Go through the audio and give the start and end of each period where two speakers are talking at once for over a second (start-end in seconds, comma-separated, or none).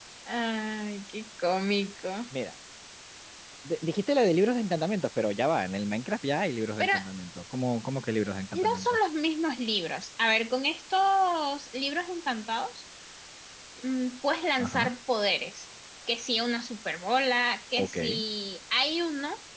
none